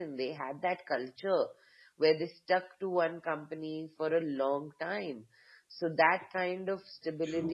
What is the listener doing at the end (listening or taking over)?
listening